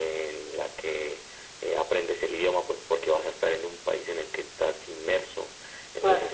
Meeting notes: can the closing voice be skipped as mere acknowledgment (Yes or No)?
Yes